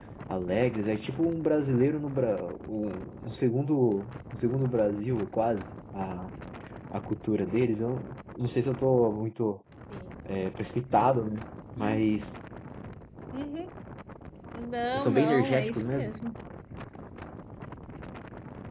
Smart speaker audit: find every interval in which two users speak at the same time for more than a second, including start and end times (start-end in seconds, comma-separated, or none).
14.9-16.1